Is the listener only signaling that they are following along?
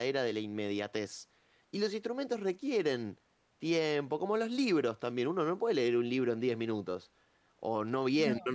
Yes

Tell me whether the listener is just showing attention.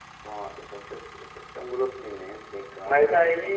No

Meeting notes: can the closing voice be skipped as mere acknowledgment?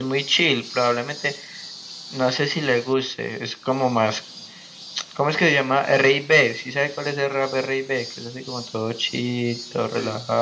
No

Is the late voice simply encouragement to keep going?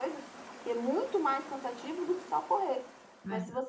Yes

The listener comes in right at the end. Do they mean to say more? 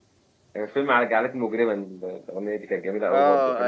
Yes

